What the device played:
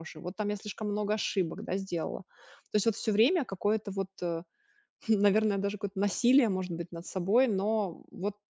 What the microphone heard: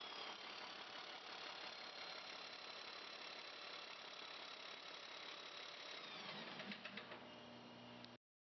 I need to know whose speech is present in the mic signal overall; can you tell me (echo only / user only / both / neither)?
neither